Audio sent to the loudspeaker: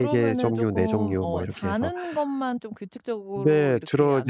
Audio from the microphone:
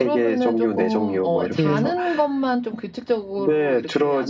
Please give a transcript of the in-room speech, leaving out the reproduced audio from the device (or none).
네.